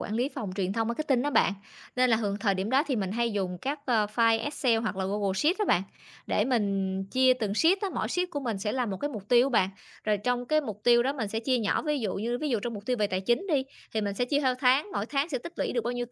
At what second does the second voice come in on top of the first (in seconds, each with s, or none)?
none